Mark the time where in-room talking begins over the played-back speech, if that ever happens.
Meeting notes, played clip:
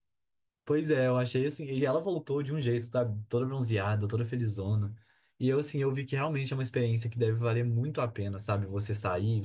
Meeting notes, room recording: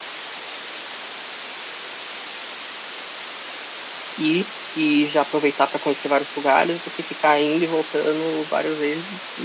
4.2 s

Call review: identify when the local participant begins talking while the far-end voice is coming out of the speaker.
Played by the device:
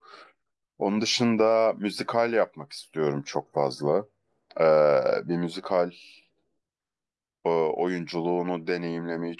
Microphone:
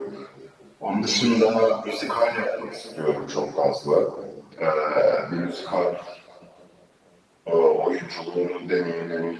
none

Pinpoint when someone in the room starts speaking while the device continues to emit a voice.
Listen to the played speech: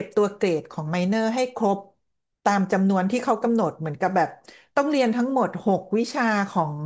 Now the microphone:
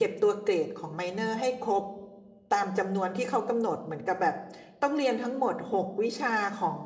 none

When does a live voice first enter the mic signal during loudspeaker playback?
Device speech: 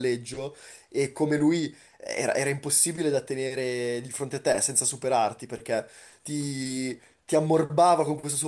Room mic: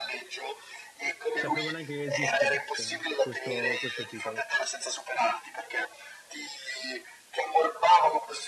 1.3 s

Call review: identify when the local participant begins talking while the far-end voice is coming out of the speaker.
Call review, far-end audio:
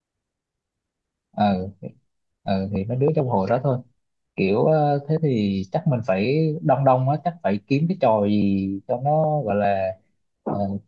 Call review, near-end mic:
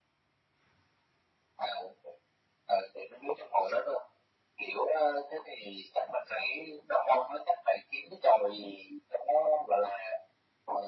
none

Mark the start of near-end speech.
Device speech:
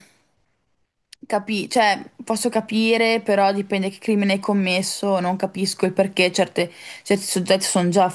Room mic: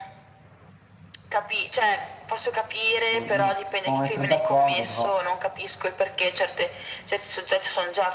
3.1 s

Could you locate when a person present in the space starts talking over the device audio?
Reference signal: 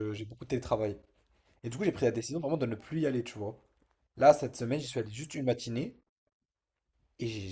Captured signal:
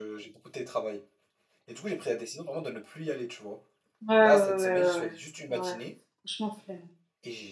4.1 s

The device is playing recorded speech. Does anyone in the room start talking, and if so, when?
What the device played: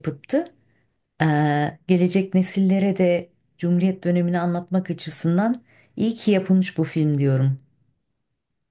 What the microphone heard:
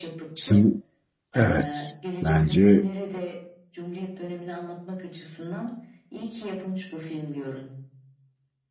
0.3 s

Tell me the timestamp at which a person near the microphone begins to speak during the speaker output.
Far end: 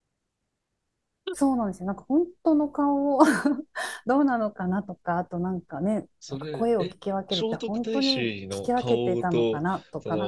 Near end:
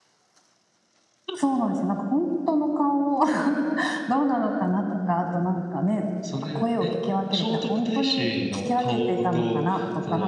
none

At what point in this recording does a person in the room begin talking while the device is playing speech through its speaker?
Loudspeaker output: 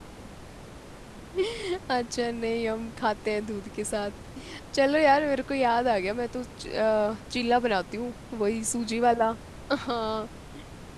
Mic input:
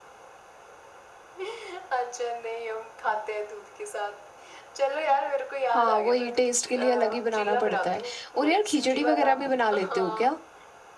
5.7 s

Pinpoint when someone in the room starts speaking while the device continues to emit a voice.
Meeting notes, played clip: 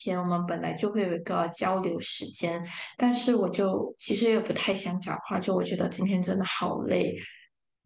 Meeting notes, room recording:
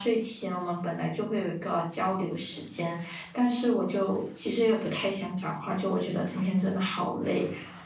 none

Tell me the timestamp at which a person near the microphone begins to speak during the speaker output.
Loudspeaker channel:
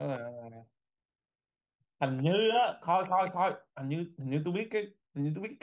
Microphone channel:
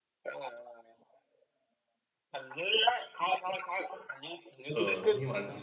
4.7 s

